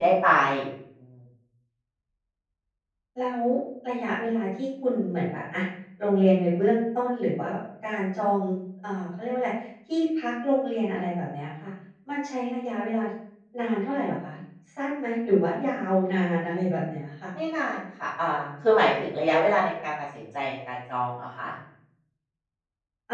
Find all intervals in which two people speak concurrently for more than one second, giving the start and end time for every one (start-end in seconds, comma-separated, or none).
none